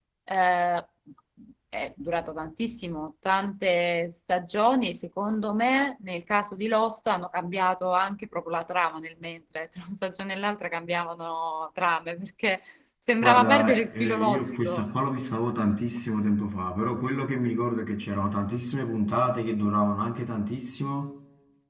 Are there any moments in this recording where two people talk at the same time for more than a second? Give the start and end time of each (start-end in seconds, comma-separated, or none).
13.2-14.8